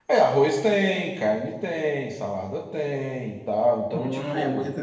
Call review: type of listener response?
taking over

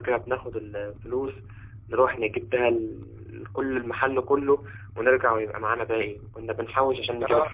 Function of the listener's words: listening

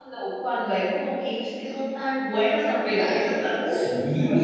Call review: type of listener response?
taking over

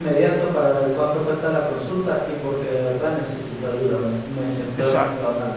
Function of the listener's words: taking over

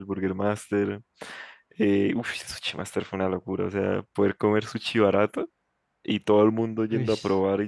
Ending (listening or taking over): listening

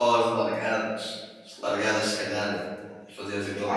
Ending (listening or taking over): taking over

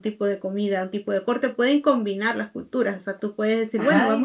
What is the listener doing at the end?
listening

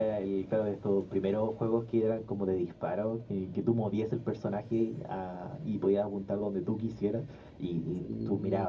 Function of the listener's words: listening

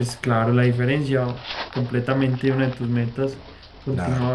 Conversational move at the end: taking over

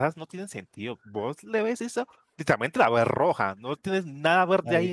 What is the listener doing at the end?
taking over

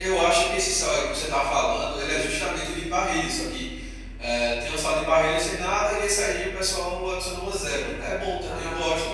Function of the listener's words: taking over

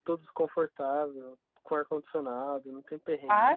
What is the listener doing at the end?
taking over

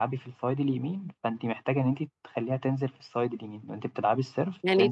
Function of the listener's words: taking over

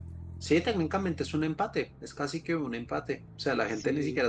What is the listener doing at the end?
listening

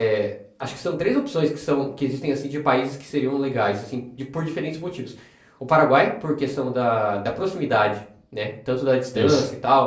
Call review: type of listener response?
listening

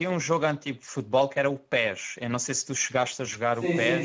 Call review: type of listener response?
taking over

